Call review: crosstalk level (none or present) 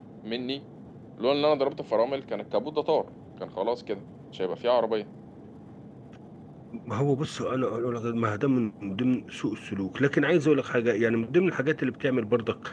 none